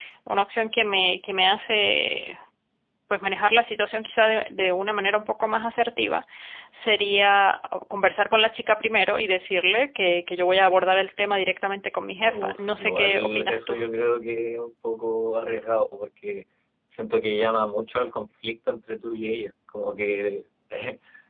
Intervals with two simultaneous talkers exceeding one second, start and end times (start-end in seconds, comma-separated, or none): 12.3-13.8